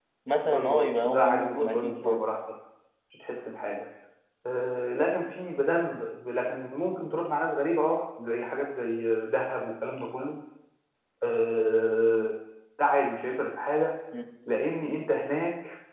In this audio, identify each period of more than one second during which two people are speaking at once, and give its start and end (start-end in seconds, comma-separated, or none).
0.5-2.2